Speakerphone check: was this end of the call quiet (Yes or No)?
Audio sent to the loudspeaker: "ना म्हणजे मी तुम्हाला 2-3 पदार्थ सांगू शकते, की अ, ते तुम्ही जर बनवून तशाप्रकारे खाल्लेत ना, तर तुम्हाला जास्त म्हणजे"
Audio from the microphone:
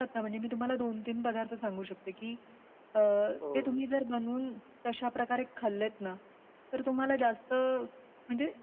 No